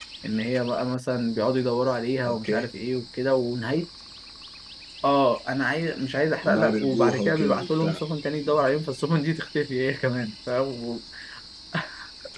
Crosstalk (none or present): present